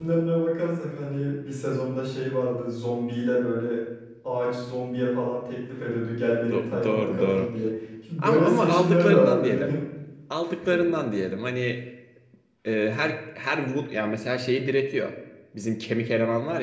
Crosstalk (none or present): present